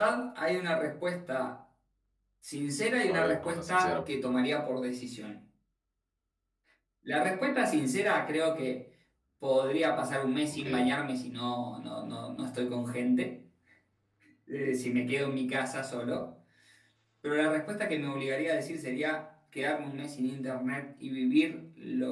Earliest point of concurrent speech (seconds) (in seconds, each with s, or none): 3.1 s